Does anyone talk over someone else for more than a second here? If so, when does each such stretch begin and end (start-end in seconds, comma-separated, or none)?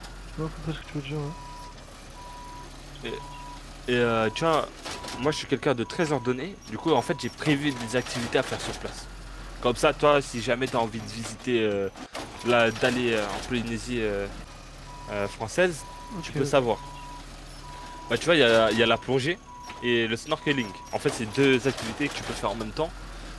none